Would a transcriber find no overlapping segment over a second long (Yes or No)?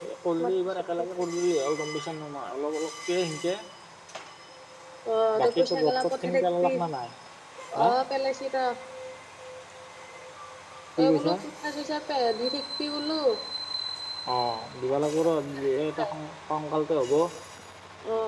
No